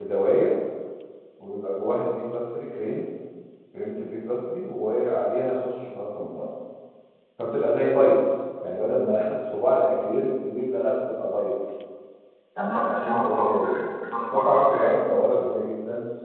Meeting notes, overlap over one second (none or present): present